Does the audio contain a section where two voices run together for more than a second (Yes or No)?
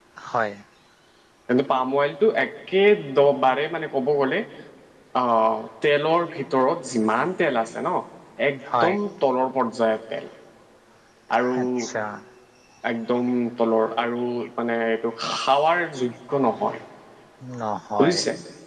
No